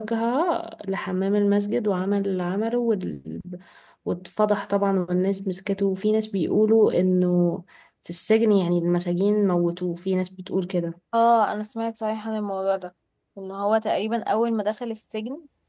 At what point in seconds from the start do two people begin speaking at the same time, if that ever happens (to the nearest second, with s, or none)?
none